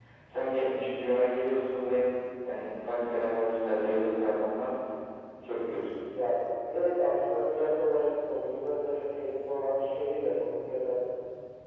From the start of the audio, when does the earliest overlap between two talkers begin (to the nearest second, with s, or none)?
none